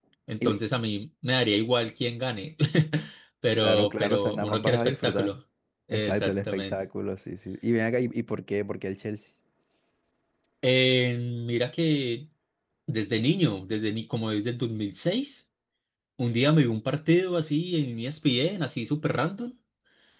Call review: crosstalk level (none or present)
present